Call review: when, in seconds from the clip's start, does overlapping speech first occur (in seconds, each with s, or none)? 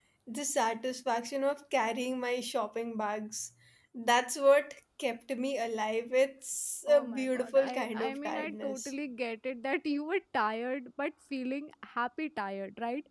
6.9 s